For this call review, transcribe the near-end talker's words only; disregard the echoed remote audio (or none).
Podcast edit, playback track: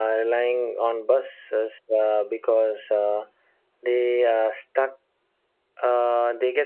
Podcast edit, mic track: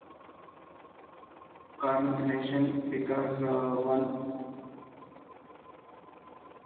congregation because uh, one